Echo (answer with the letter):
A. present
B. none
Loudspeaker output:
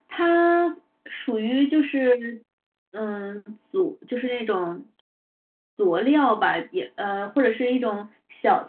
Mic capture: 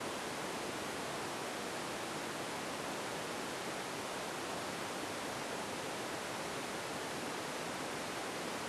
B